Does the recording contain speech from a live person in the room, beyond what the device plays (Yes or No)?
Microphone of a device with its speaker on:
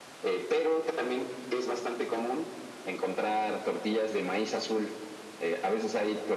No